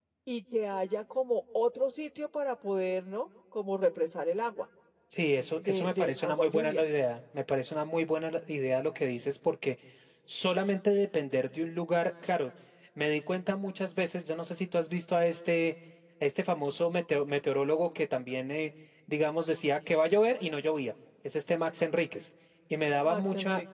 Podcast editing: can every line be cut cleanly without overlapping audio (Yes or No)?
No